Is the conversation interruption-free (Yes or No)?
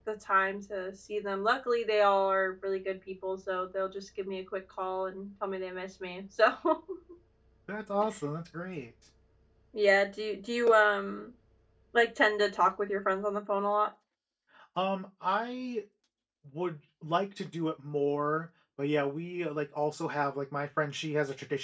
Yes